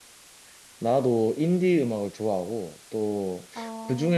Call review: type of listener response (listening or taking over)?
listening